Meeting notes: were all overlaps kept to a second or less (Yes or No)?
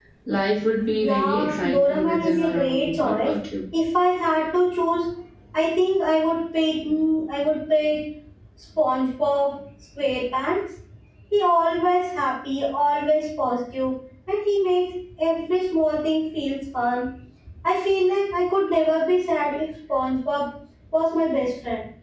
No